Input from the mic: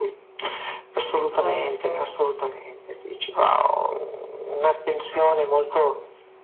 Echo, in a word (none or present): present